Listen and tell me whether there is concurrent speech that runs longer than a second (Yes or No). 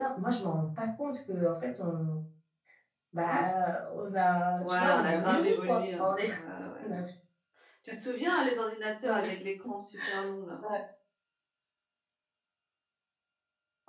Yes